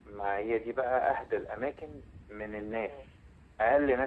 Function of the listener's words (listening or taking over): listening